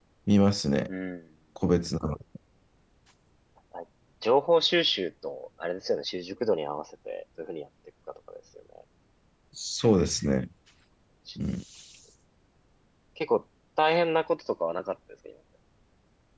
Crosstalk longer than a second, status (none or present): none